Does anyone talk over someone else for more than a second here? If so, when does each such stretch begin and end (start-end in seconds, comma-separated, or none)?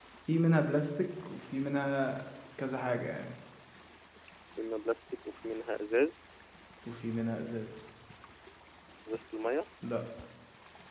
none